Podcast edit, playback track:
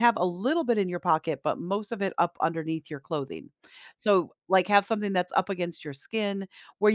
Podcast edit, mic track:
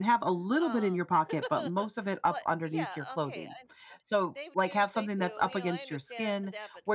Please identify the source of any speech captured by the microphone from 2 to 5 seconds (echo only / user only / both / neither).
both